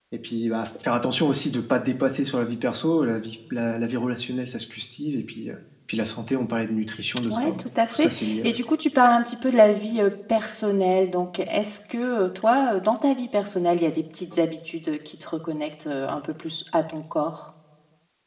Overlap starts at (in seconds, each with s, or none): 7.3 s